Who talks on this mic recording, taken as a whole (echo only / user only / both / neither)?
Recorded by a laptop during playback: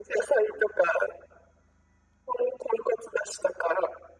echo only